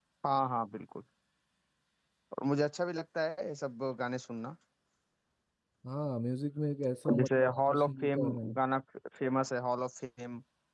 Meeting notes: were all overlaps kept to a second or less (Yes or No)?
No